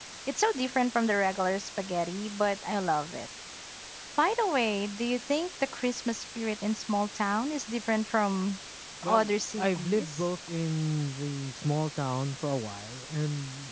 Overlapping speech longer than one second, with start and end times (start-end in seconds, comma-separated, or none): 9.1-10.3